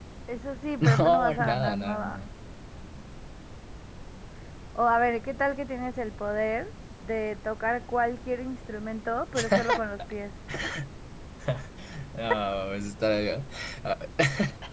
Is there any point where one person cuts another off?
Yes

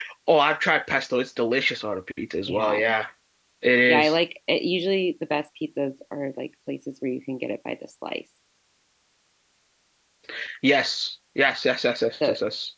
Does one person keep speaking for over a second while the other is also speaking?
No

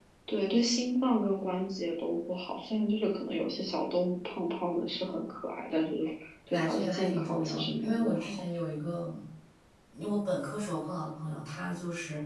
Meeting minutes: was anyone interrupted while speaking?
Yes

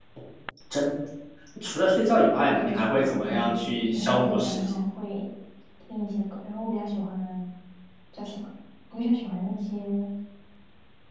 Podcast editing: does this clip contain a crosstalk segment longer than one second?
Yes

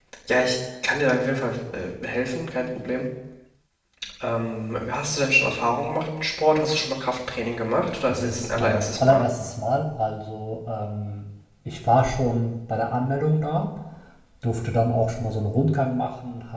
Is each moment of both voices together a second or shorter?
No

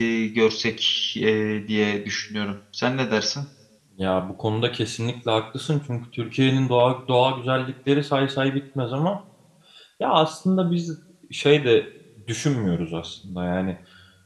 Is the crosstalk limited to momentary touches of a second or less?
Yes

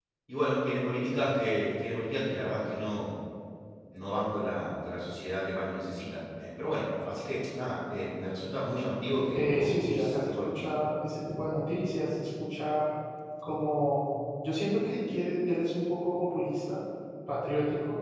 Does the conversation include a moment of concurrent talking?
Yes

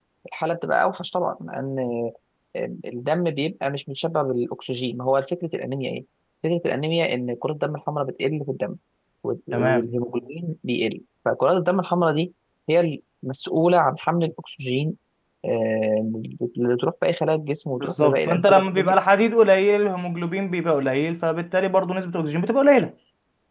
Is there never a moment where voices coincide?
No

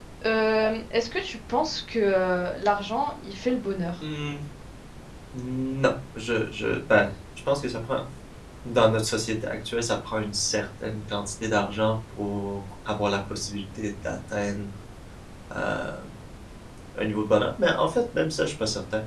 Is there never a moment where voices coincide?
Yes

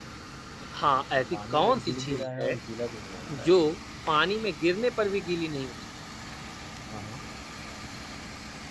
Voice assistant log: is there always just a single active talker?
No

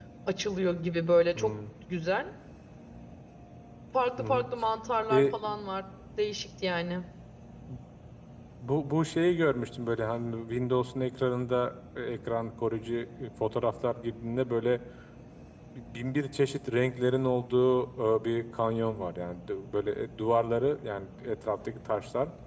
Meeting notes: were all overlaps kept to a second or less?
Yes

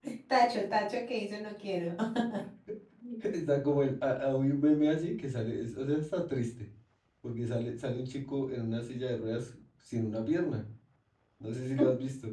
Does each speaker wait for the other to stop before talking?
Yes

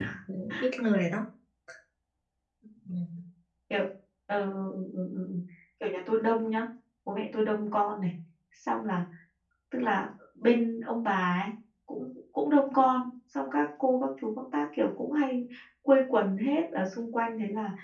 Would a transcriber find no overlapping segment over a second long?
Yes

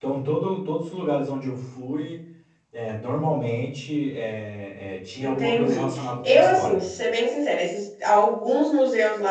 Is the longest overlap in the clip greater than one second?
Yes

